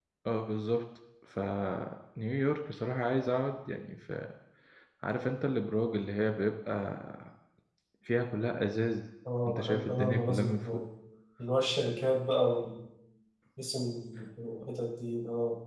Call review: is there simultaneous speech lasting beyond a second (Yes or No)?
Yes